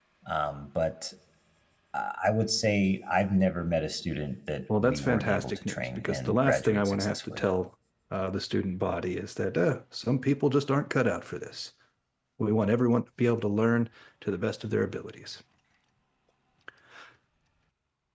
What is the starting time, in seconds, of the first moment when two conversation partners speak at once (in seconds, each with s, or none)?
4.7 s